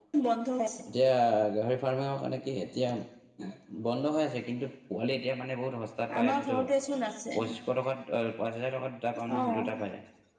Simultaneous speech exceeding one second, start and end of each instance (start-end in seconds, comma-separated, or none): none